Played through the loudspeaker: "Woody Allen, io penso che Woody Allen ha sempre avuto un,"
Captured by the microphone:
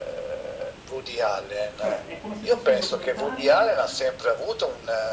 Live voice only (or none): cioè, è come se fosse un documentario?